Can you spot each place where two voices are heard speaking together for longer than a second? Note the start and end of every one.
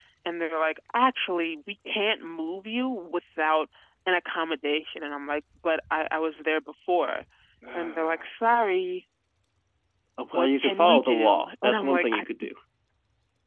10.3-12.2

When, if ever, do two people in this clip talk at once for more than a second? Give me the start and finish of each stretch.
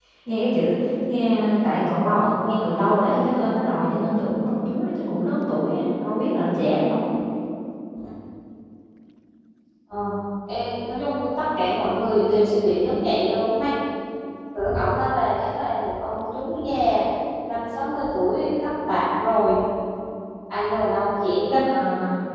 none

